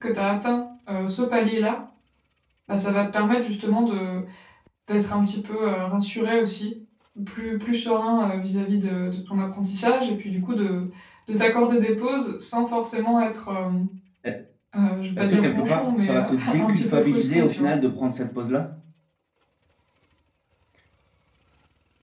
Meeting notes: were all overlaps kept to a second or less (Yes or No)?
No